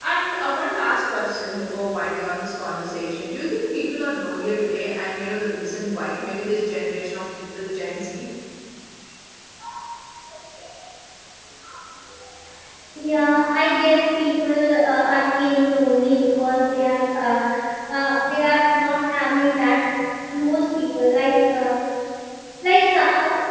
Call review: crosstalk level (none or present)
none